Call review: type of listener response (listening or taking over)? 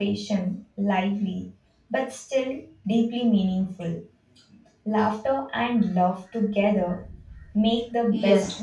taking over